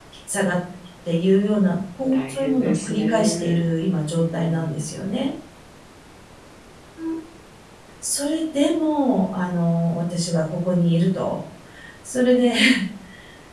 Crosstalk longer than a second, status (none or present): present